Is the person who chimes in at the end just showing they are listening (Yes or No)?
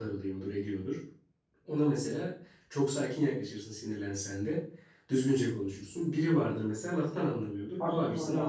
No